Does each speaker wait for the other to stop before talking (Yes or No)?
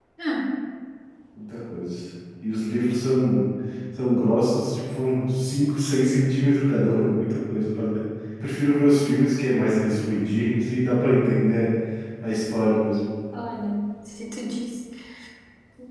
Yes